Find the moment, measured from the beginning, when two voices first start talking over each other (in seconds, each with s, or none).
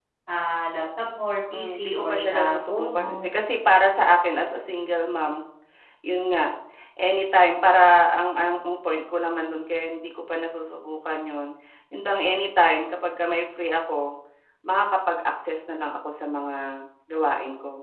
1.5 s